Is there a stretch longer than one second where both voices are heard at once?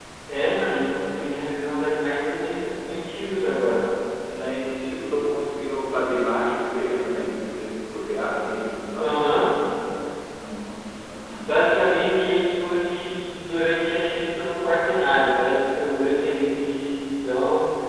No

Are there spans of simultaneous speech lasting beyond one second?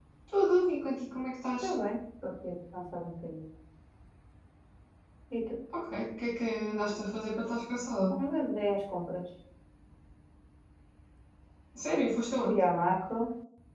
No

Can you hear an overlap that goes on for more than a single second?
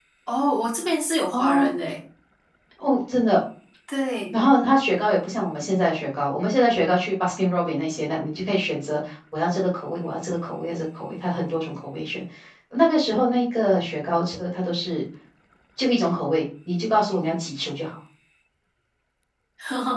No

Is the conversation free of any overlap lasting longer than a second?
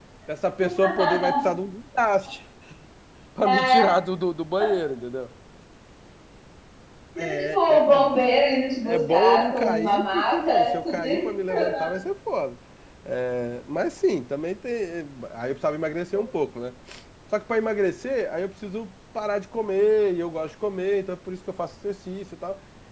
No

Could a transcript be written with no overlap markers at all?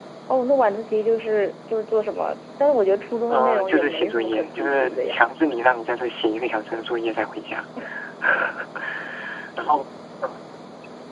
No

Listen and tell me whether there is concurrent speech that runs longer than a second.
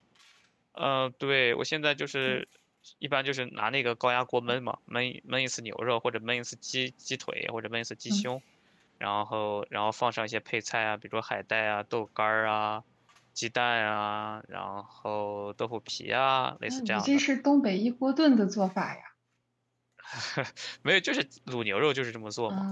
No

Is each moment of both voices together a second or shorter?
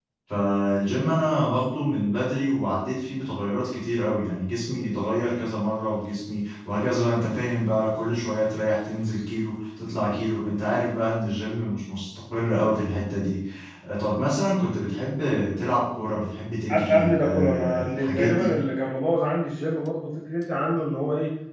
No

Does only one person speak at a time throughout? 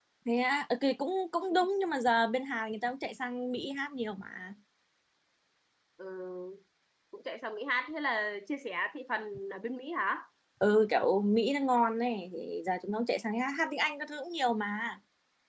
Yes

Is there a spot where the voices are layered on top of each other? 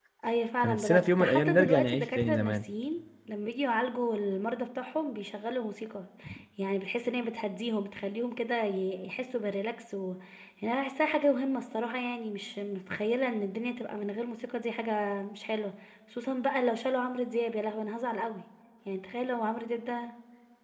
Yes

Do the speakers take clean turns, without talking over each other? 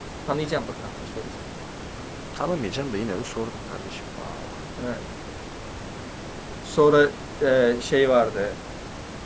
Yes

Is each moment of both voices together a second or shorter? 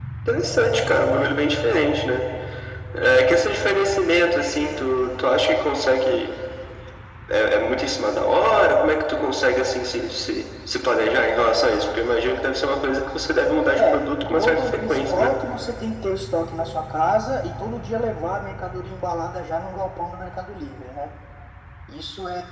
No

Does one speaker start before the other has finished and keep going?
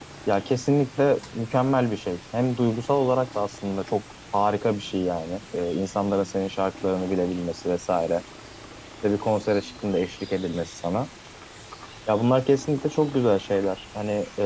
No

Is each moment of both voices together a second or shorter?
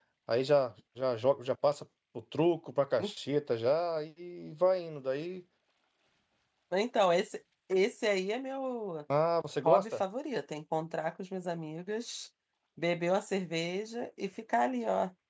Yes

